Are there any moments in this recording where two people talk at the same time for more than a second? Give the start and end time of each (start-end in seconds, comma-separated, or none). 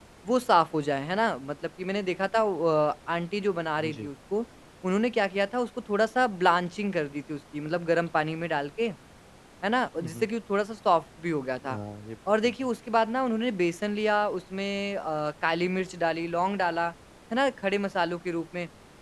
none